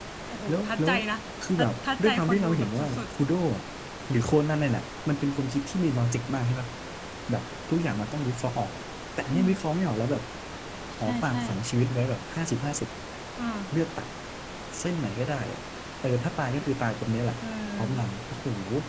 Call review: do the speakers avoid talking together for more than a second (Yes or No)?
No